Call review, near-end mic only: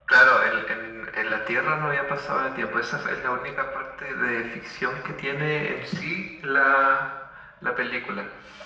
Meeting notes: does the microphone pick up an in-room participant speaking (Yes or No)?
No